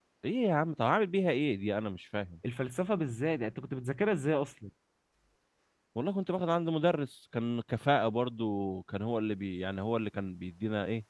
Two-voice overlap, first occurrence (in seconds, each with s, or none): none